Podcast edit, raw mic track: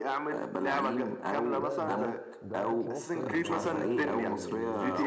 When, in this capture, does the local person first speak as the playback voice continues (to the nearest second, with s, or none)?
2 s